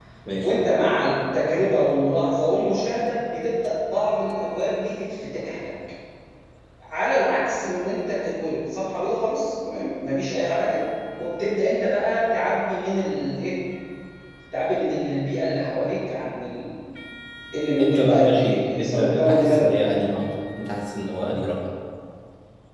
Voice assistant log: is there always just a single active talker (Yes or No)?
No